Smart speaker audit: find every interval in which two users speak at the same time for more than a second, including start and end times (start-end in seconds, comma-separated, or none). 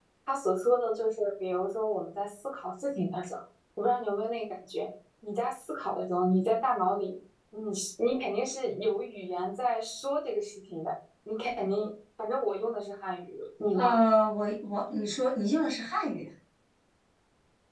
none